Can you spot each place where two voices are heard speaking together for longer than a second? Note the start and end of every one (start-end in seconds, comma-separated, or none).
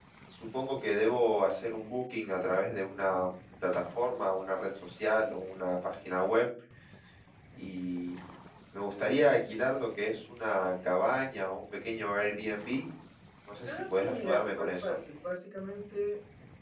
13.7-15.0